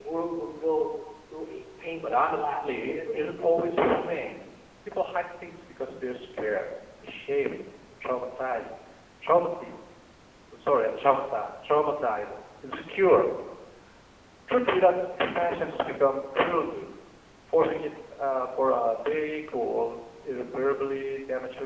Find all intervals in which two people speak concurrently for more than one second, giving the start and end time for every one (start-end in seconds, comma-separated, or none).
2.0-4.1